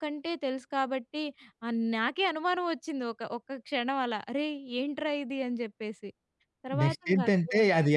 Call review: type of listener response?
taking over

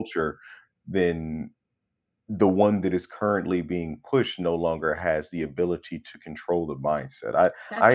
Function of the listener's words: listening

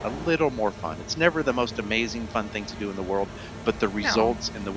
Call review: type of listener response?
listening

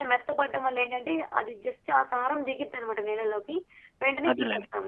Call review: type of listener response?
listening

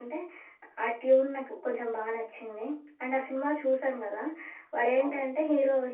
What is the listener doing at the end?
listening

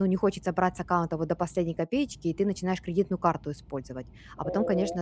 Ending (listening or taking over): listening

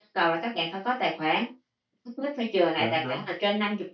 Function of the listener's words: listening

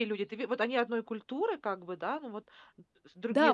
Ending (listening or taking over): taking over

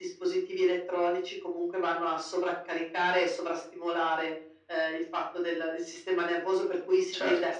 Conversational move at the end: listening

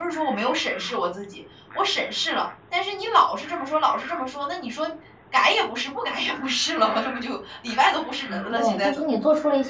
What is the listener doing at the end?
taking over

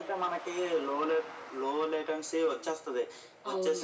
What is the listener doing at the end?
listening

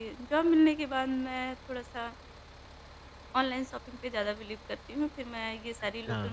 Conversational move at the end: listening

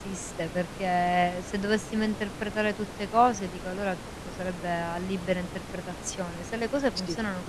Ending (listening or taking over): listening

